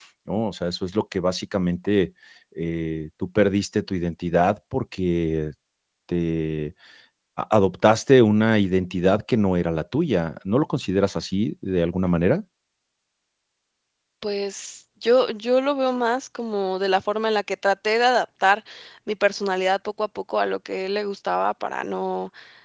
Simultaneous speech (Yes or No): No